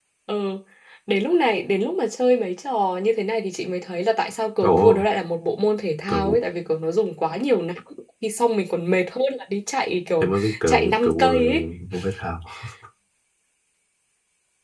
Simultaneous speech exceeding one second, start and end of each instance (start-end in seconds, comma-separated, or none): 10.2-11.5